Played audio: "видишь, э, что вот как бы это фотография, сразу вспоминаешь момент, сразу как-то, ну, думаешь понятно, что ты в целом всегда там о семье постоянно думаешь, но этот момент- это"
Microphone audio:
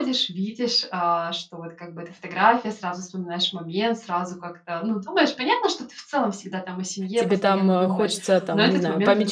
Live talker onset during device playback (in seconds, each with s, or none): 7.2 s